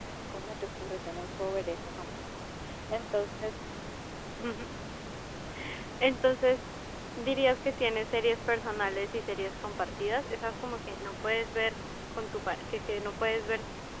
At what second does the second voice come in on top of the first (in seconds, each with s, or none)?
none